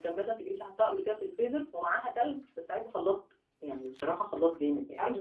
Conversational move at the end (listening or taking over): listening